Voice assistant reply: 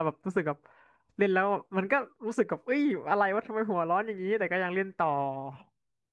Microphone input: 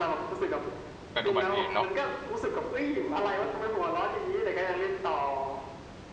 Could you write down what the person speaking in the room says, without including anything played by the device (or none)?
เกิดอุบัติเหตุเนาะ